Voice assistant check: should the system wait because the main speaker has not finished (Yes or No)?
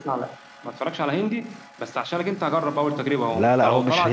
No